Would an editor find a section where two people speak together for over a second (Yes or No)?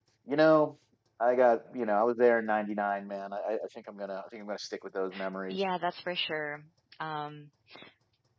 No